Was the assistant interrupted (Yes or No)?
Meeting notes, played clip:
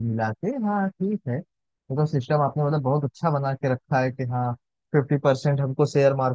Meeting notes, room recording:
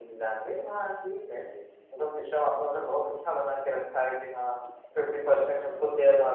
Yes